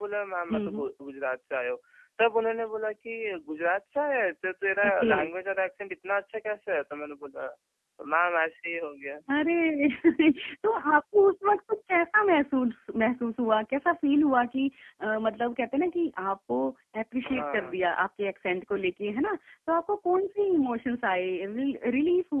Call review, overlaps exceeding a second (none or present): none